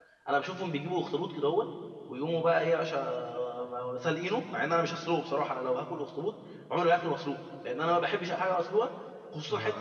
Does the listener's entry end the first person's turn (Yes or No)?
Yes